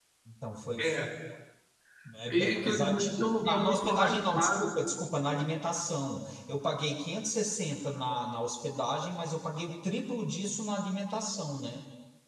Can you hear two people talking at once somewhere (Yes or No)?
Yes